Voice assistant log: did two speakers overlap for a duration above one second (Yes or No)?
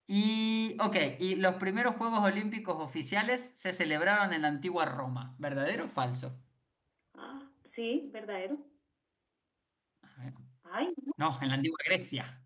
No